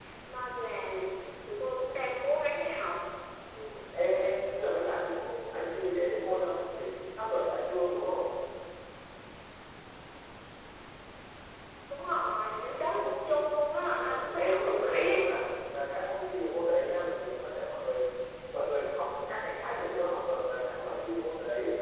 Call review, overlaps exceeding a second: present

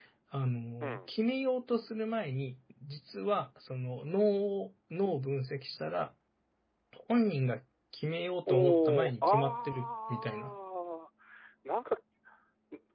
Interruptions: present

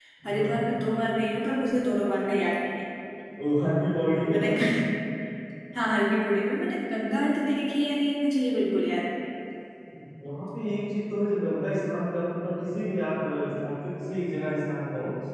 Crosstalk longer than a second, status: none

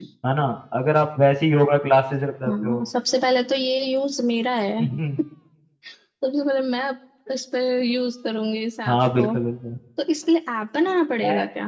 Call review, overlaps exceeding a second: none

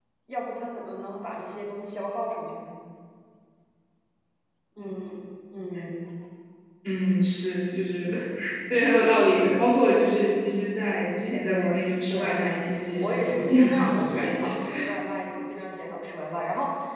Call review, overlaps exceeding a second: present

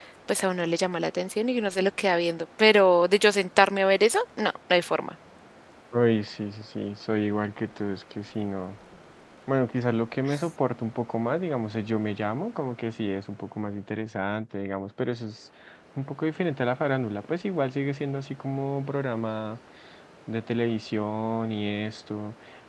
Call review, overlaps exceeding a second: none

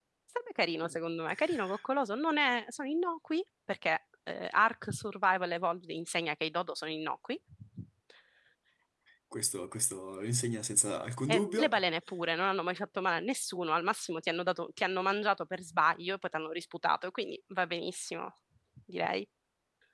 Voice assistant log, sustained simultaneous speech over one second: none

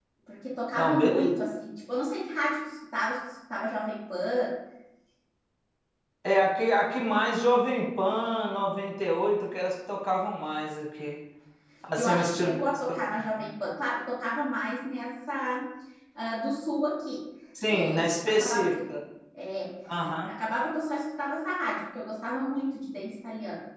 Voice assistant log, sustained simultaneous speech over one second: present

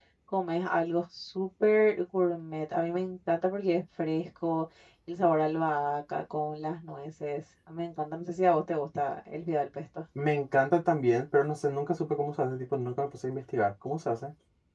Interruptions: none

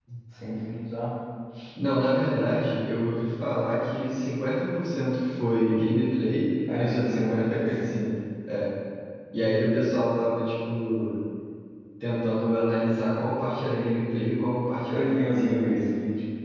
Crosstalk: present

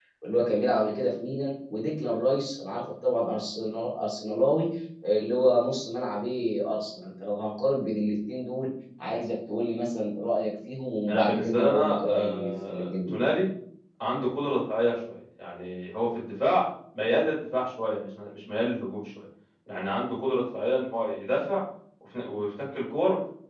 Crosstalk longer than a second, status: present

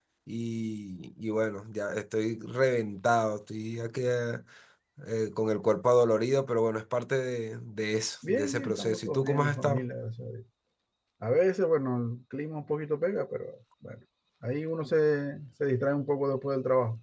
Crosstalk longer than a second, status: present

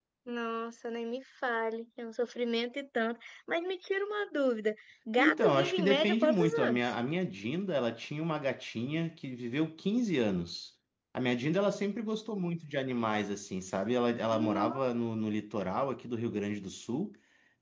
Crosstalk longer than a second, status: present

